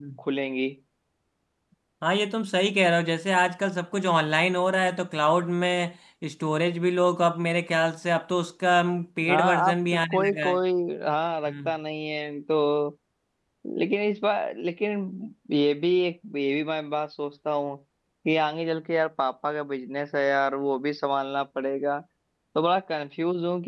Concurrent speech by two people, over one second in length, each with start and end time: 9.3-10.5

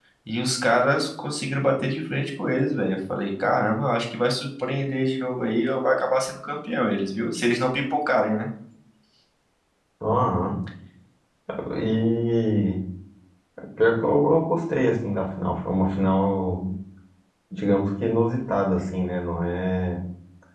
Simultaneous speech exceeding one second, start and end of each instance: none

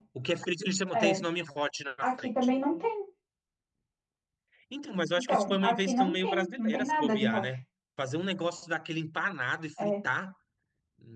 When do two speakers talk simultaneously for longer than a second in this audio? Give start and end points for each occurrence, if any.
5.2-7.4

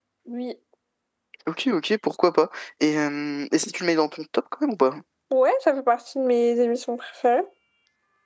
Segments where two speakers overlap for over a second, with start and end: none

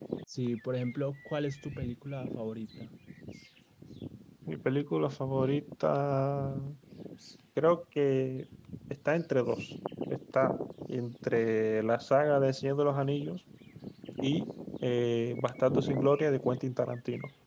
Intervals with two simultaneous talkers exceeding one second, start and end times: none

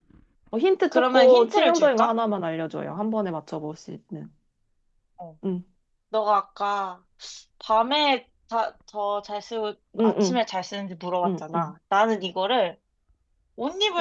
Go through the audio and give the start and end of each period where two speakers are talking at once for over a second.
0.9-2.1

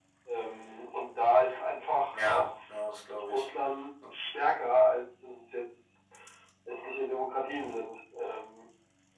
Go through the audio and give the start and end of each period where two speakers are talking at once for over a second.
none

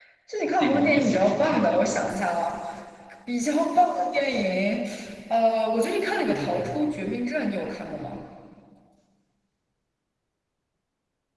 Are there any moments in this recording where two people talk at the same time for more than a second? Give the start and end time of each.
0.6-1.9

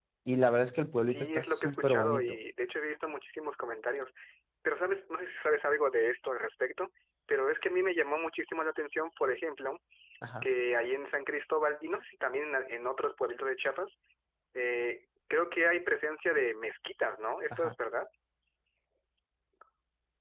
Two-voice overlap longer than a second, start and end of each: 1.1-2.4

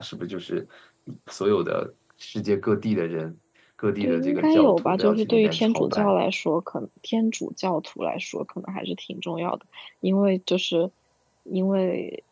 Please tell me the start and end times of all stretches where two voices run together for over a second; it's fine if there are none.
4.0-6.1

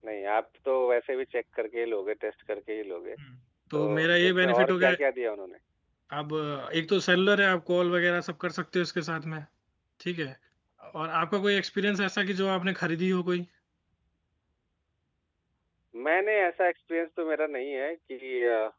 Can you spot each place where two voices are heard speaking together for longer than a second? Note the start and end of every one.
3.7-4.9

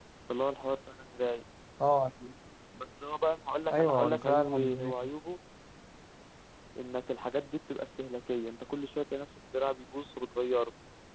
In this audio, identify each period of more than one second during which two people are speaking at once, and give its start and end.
3.7-4.9

